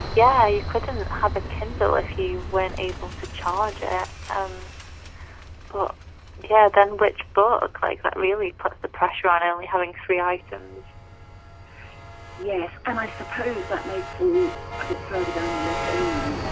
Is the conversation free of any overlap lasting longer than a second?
Yes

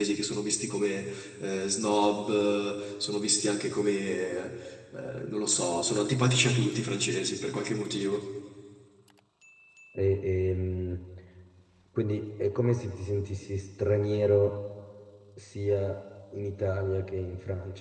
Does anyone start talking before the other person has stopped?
No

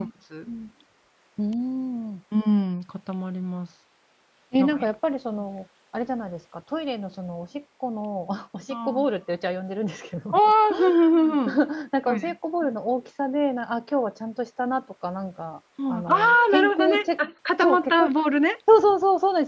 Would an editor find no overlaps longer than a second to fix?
No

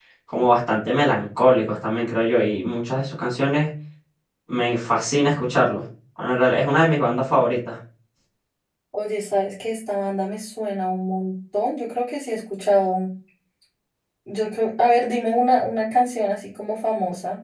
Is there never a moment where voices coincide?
Yes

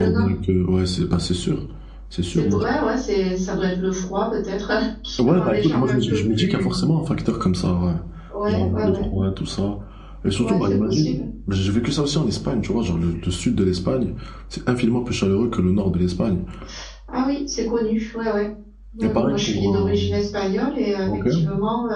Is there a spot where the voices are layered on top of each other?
Yes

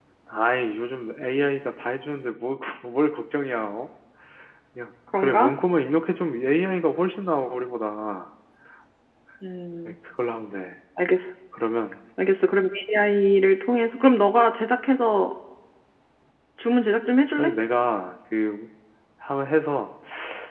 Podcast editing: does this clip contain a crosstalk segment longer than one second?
No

